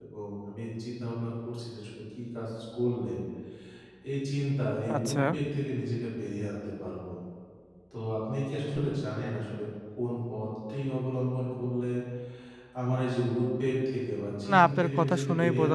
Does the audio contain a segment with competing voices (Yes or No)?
Yes